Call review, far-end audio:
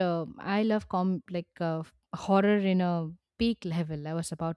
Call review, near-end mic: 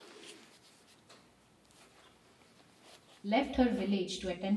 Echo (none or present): none